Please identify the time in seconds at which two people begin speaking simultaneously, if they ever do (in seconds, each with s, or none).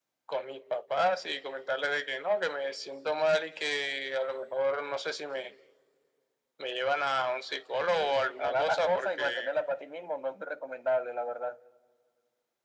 7.9 s